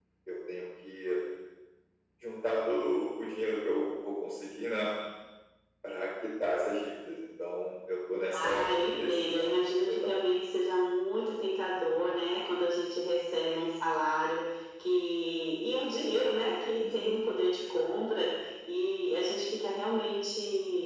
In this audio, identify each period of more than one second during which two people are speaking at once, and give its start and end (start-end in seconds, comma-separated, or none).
8.3-10.2